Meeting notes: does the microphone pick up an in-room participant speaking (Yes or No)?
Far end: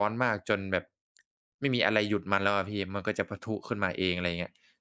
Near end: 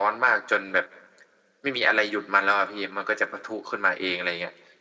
No